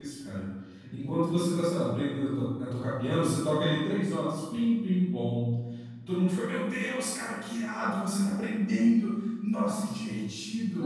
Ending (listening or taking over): taking over